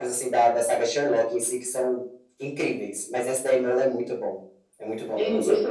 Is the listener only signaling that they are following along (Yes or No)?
No